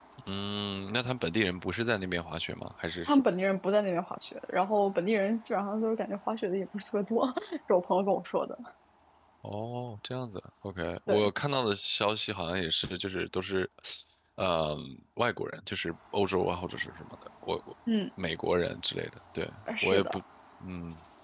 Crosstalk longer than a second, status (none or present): none